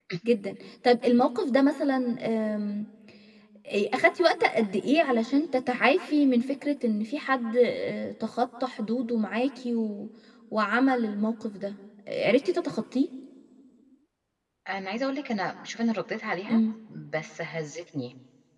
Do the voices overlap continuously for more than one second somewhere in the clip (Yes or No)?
No